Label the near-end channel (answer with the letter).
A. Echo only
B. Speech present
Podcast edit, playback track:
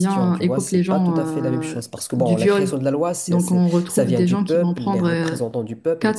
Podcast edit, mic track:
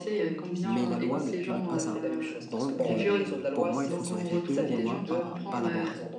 B